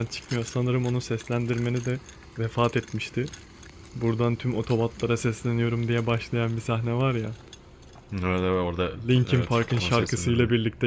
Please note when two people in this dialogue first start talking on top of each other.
9 s

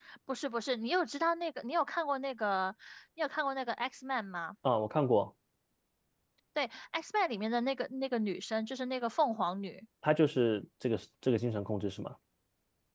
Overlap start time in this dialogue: none

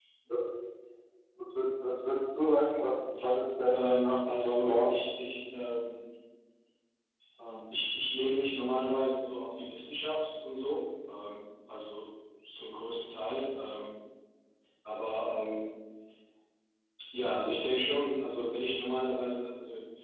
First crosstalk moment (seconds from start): 4 s

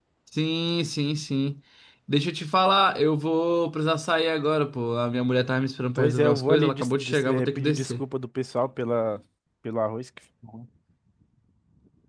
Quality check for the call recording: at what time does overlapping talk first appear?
6 s

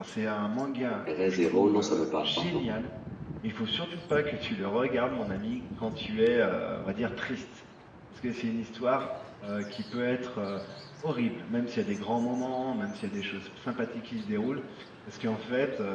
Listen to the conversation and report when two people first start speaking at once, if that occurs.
1 s

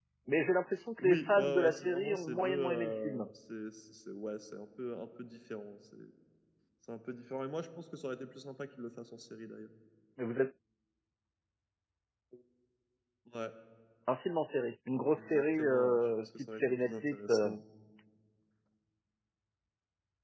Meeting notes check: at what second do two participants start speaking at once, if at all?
1 s

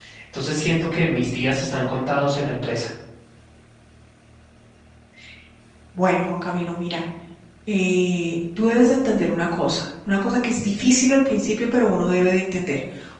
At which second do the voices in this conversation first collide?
none

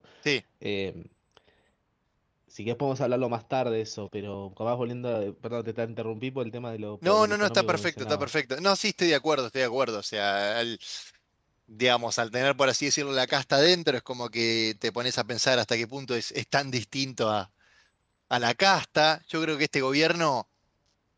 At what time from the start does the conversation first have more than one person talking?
7 s

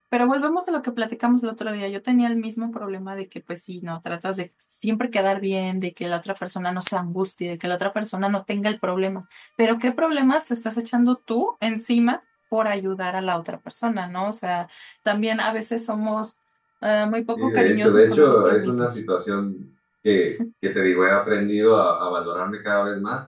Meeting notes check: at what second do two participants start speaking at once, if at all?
17 s

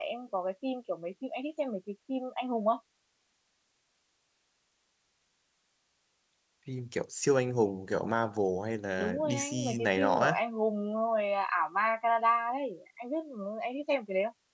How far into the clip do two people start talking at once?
9 s

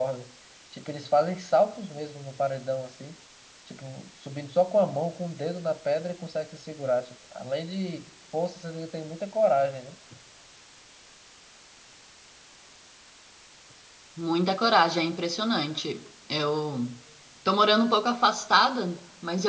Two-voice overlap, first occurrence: none

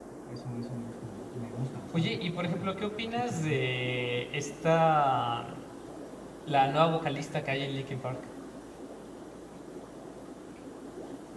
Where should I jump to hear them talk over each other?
2 s

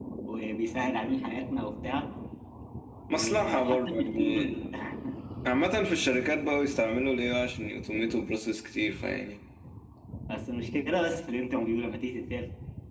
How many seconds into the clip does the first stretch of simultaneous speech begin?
3 s

